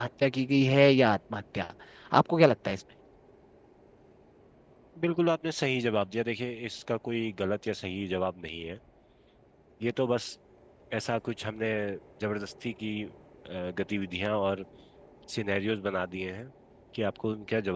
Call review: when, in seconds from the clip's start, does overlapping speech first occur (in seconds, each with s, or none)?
none